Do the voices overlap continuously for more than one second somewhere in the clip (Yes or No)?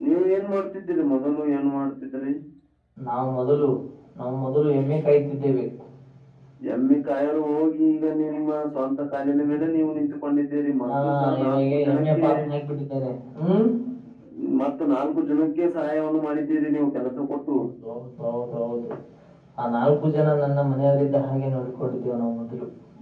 Yes